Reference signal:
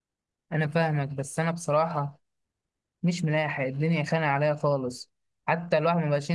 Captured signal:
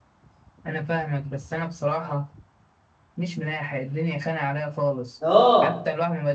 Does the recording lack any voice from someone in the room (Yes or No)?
No